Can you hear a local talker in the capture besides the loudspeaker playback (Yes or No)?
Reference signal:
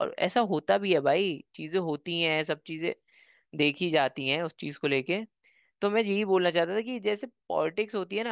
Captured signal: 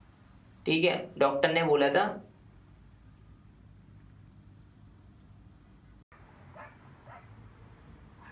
Yes